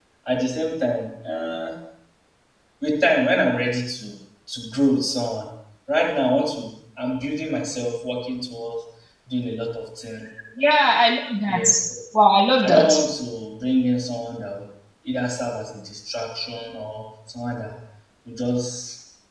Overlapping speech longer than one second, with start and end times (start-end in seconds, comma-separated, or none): none